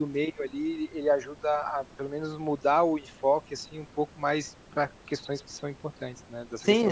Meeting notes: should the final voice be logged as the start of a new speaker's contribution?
Yes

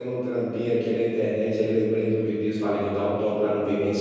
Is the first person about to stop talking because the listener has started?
No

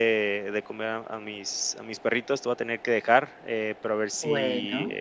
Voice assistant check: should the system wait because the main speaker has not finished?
Yes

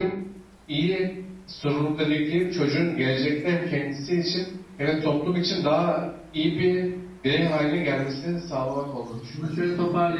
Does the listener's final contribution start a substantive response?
Yes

